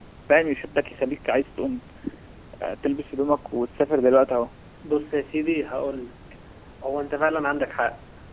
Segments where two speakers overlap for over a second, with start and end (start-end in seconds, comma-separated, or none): none